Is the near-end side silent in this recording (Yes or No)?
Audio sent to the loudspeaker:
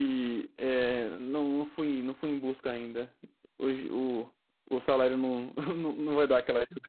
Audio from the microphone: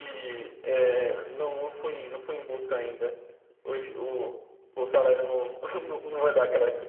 Yes